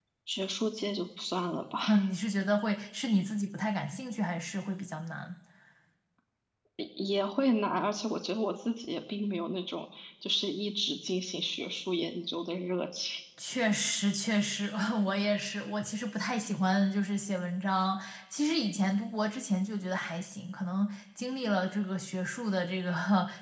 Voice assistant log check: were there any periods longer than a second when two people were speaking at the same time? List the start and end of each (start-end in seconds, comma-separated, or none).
none